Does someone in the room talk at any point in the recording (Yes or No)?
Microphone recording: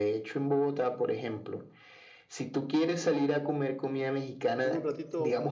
Yes